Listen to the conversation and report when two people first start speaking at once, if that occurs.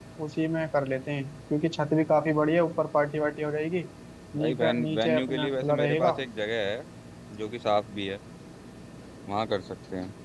4.4 s

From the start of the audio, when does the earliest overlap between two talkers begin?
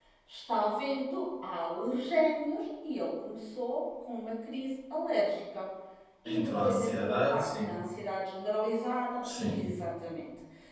6.2 s

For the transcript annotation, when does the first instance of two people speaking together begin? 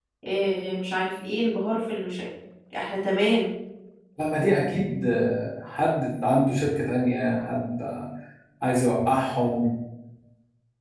none

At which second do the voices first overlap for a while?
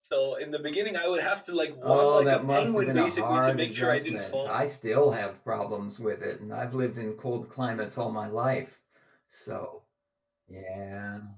1.8 s

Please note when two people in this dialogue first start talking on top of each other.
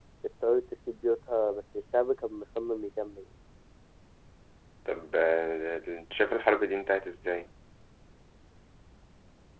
none

